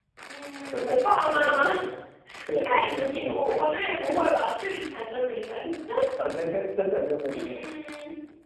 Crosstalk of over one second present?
Yes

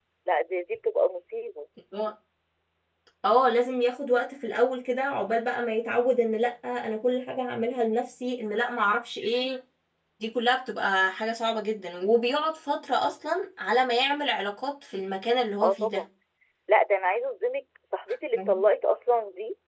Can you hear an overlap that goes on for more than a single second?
No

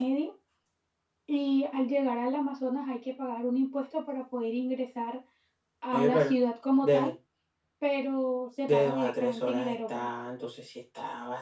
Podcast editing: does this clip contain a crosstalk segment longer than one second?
Yes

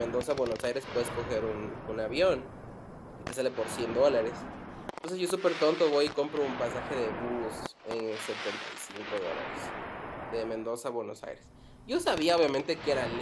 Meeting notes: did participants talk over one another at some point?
No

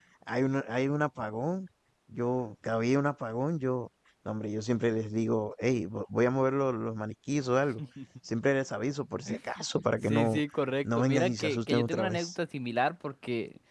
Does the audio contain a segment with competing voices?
Yes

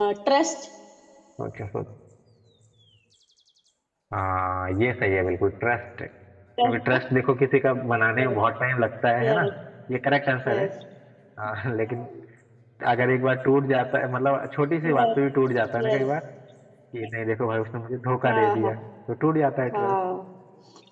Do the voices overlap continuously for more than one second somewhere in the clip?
No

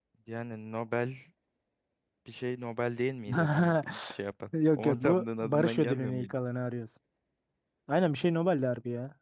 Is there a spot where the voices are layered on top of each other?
Yes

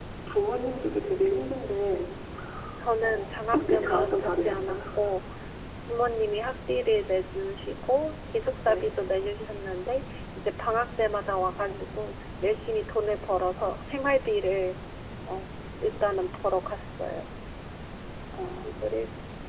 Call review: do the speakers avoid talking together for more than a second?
No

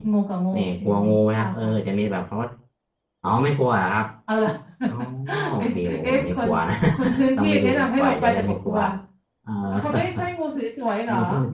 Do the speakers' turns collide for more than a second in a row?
Yes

